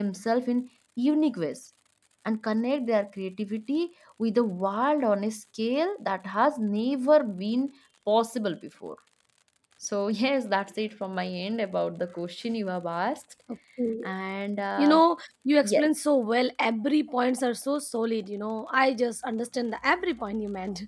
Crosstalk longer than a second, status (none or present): none